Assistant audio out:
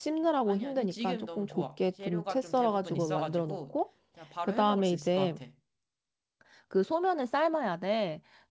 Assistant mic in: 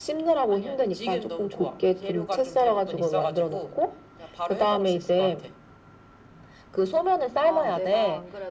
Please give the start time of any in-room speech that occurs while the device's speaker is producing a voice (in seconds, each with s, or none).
7.4 s